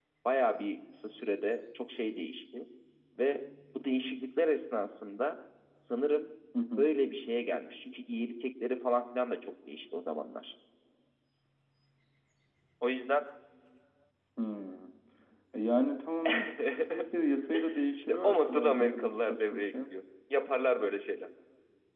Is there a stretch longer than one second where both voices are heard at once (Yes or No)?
Yes